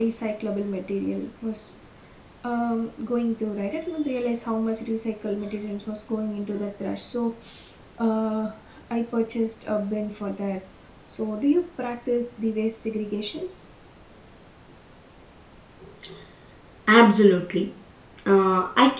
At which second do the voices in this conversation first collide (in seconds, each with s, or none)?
none